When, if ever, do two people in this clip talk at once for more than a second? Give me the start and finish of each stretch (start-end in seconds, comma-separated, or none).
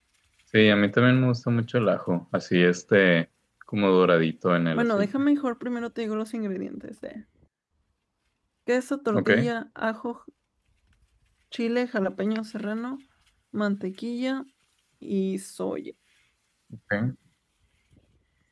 none